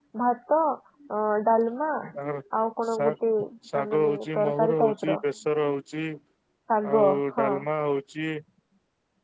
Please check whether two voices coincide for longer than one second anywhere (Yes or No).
Yes